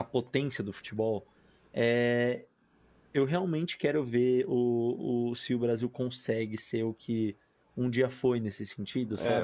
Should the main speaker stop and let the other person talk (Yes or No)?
Yes